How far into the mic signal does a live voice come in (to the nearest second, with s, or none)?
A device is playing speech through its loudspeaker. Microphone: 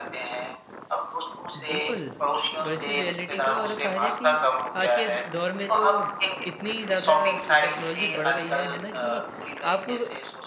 2 s